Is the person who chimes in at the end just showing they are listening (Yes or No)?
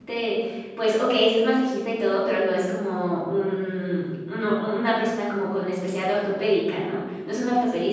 Yes